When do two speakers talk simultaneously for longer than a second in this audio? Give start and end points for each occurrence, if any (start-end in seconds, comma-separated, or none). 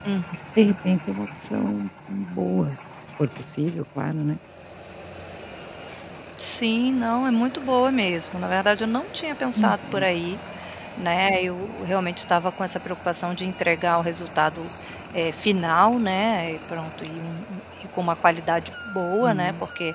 none